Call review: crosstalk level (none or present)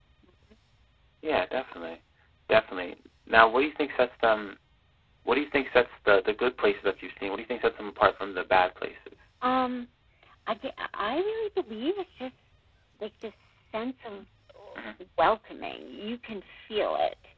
none